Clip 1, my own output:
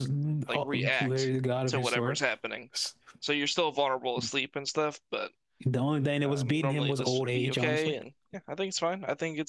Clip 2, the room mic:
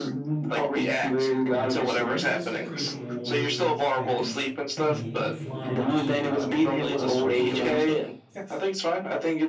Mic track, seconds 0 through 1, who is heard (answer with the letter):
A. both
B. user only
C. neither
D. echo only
D